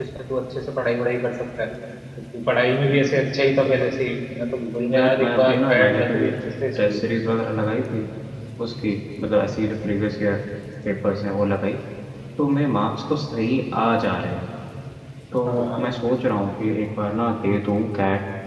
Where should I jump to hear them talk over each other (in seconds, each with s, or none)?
4.9 s